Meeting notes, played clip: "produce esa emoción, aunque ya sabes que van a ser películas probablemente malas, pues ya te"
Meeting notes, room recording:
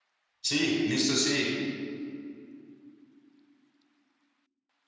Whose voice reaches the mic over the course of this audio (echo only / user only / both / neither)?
user only